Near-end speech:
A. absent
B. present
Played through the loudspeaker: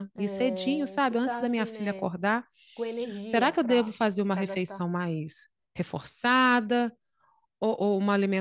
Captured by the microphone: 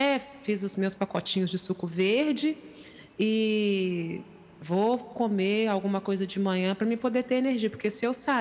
B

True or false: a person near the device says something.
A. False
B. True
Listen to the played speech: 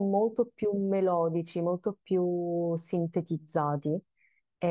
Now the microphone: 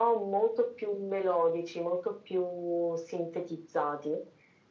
A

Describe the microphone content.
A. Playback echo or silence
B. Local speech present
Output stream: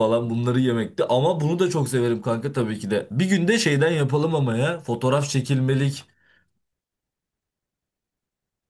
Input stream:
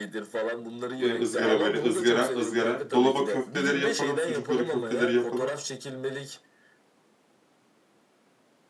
B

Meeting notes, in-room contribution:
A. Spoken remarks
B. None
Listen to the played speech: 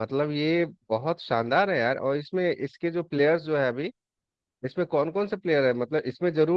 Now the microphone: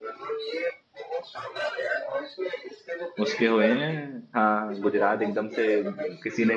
A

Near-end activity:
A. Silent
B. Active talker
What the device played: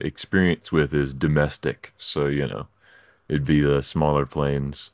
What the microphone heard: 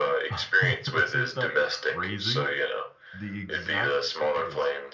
B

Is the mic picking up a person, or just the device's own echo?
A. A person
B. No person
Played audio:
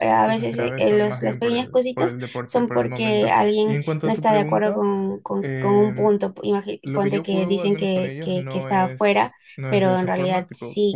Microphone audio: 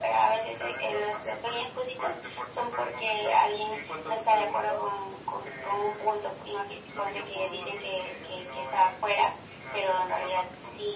B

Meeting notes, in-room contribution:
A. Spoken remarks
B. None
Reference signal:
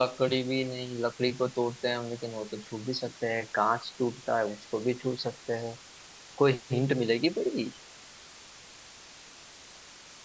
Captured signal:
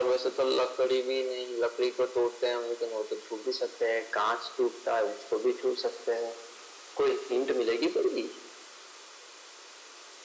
B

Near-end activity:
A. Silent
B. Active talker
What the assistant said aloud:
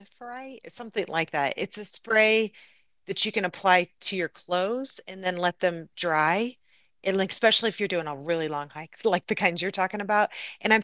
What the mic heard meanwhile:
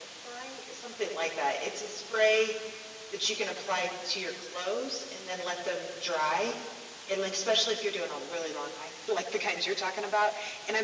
A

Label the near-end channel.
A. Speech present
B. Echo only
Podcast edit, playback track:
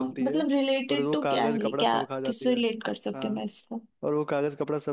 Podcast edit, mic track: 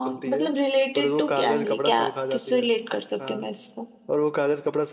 B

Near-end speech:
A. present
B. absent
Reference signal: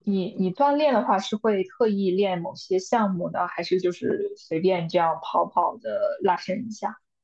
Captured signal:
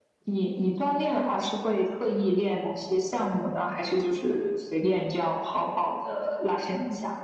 B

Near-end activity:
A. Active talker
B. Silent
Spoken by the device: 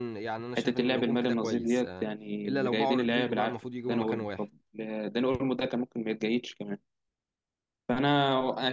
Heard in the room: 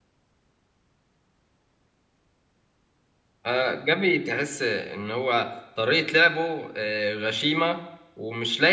A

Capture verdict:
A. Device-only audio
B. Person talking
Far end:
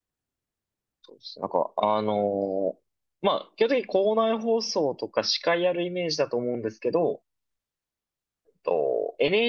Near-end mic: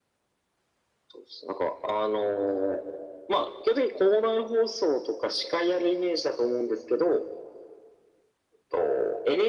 A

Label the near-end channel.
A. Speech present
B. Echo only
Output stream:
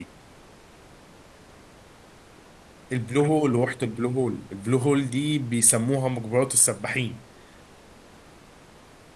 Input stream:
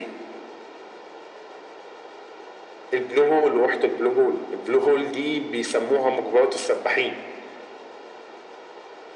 B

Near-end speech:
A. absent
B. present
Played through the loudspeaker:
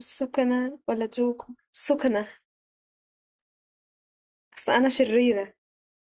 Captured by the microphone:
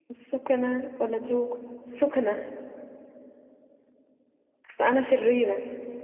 A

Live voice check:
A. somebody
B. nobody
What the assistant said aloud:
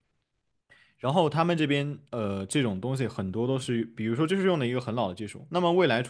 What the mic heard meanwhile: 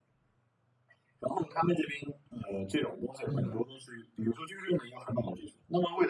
A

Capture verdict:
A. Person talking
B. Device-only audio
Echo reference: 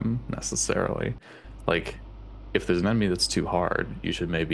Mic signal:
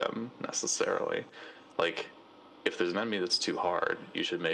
B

